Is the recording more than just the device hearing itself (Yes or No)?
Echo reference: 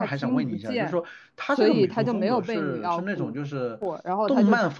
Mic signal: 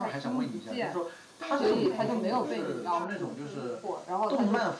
Yes